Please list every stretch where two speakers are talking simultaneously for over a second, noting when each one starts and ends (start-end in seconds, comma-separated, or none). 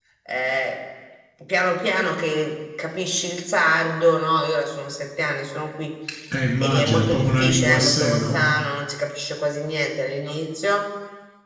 6.6-8.4